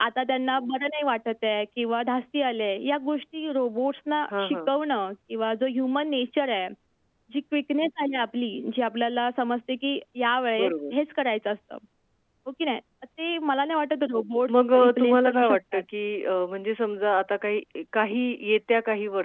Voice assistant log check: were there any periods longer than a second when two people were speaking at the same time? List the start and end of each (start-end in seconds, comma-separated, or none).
14.5-15.8